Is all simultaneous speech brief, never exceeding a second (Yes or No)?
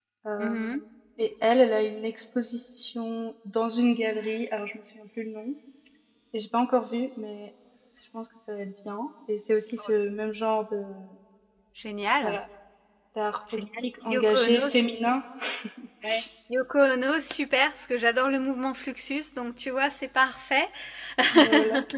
No